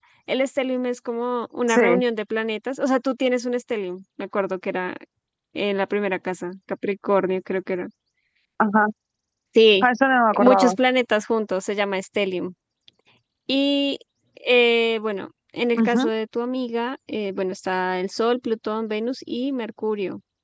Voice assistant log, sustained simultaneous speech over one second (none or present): none